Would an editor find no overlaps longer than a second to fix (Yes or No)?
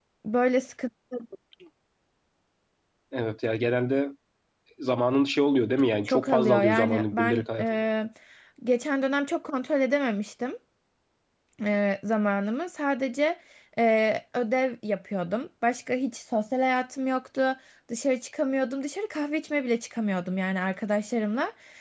No